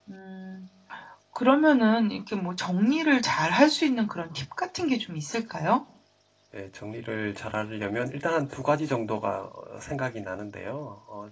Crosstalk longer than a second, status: none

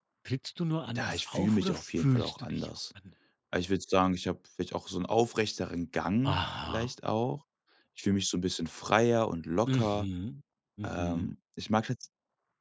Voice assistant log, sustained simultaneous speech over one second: present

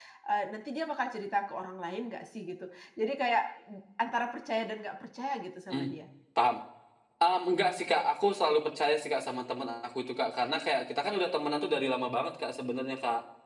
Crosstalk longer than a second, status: none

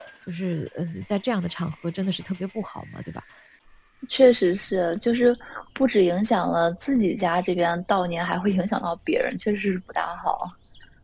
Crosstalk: none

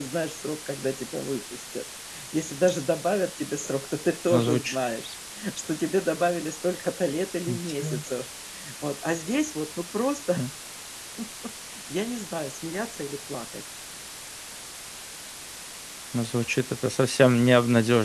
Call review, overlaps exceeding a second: none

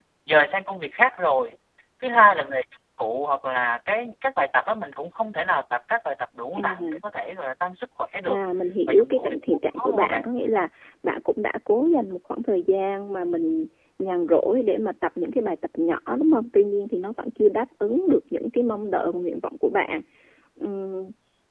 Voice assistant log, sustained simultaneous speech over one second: present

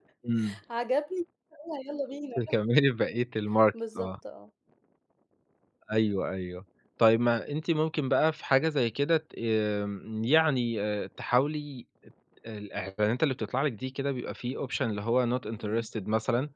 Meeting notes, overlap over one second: none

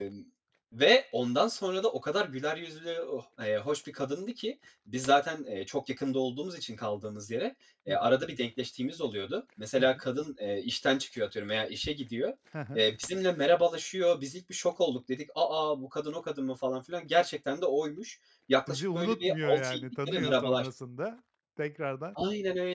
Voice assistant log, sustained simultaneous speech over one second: present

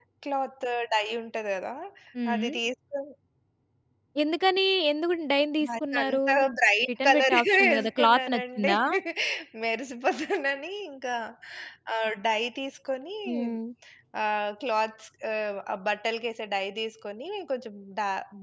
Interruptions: present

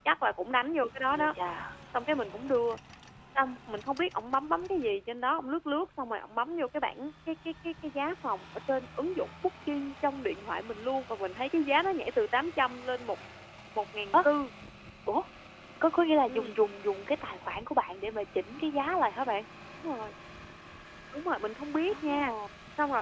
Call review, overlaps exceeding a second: none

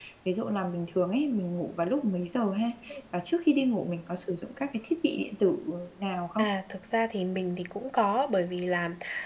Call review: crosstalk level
none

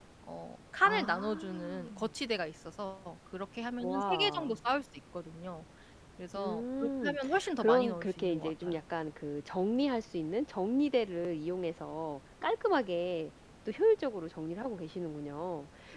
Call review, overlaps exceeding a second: present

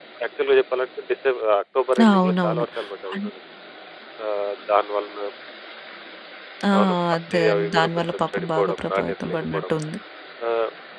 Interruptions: present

